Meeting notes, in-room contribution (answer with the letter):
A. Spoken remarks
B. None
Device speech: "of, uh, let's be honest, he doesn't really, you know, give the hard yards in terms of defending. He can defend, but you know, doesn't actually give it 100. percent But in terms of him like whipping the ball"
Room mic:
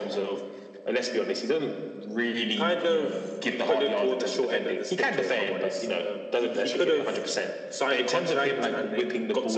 A